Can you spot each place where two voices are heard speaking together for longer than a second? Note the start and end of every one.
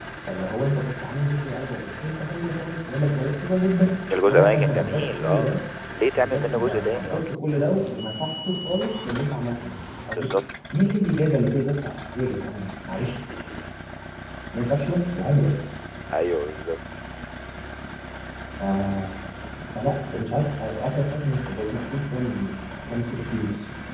4.2-5.6, 6.0-7.4

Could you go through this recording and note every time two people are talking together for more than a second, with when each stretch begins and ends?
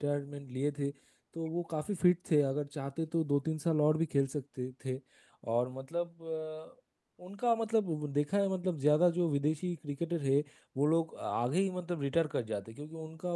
none

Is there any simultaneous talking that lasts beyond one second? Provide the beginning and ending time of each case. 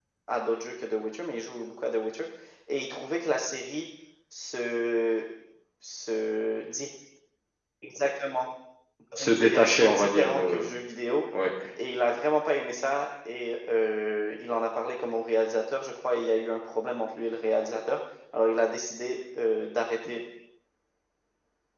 9.2-10.7

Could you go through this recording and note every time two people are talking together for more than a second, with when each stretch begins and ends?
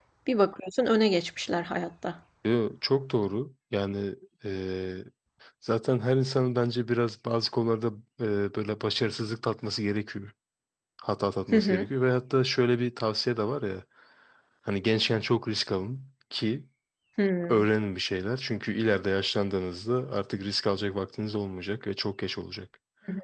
none

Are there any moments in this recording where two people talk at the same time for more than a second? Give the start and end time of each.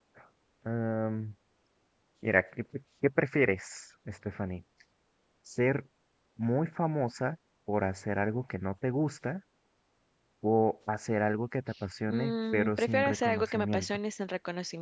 12.1-14.0

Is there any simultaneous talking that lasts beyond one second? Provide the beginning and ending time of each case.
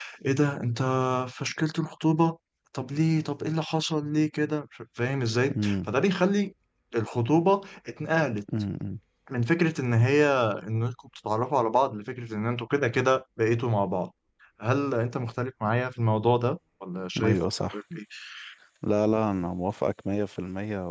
none

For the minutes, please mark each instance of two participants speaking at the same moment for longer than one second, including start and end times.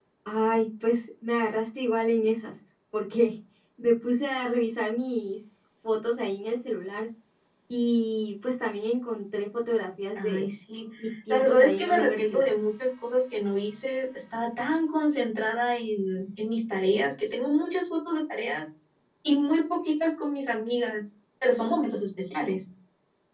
11.3-12.5

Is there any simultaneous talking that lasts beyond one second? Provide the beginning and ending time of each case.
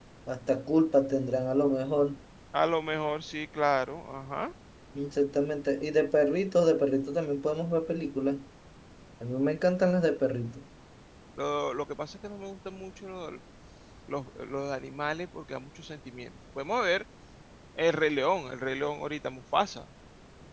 none

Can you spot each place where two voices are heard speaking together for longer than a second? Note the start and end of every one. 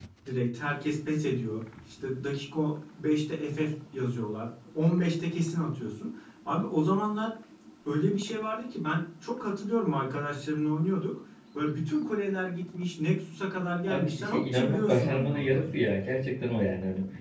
13.8-15.7

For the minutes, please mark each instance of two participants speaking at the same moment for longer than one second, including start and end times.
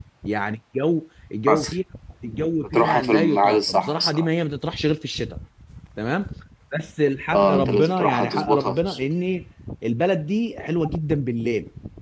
2.7-4.3, 7.3-9.1

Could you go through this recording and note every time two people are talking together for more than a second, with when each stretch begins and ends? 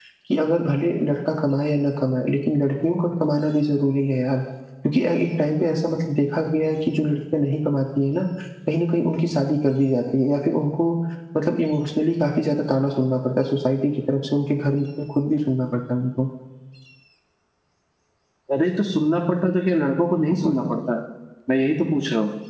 none

